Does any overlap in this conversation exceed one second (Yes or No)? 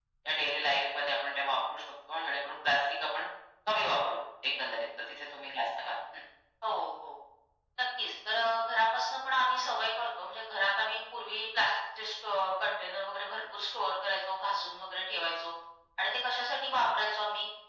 No